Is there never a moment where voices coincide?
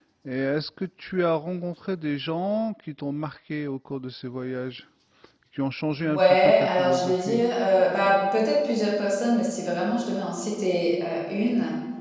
No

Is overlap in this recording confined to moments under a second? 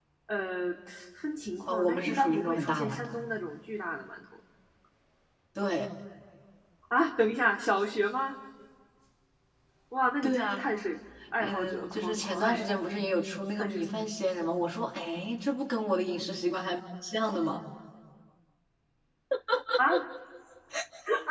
No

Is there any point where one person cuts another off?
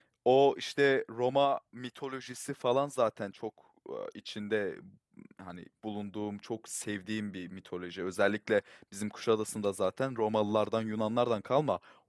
No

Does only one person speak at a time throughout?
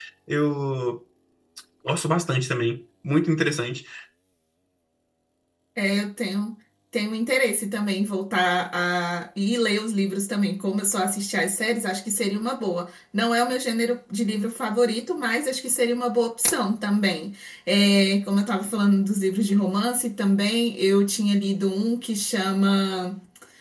Yes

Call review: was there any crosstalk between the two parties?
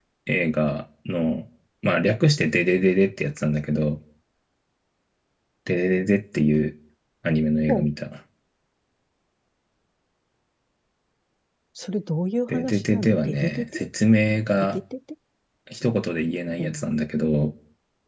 Yes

